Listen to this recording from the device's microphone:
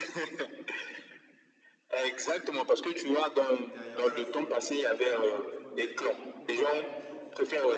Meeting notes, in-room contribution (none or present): present